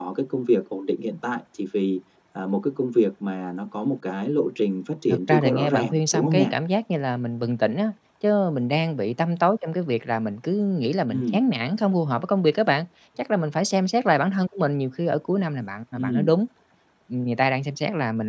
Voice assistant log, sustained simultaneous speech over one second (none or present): present